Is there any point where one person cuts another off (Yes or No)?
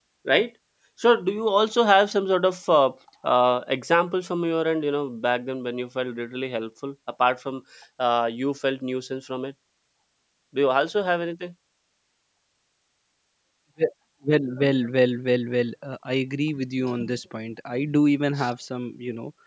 No